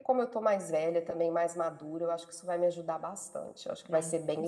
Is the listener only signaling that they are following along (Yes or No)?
No